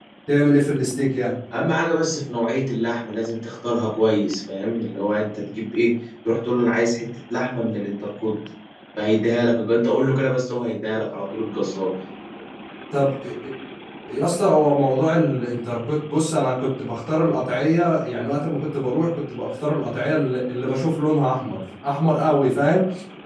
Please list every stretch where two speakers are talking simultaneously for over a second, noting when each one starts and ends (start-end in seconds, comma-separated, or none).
none